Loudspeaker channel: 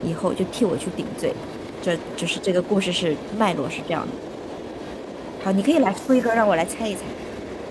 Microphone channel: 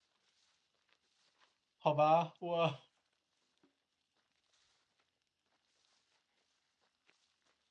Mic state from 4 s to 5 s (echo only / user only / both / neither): neither